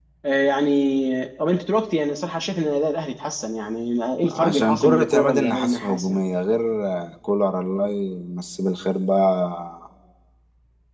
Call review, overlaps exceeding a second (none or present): present